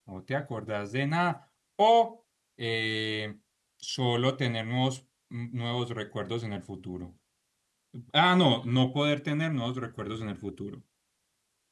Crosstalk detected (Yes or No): No